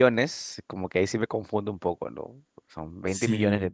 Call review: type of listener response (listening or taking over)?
listening